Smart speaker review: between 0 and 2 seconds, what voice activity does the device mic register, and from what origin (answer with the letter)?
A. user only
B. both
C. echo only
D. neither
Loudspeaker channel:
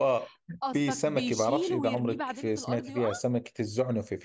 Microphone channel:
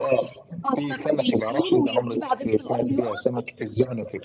C